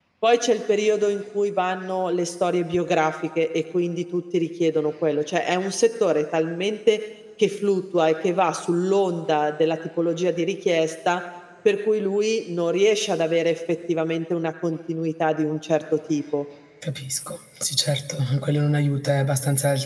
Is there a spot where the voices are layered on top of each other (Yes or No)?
No